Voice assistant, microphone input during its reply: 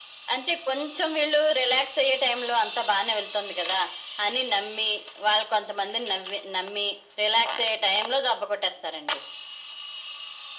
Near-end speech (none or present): none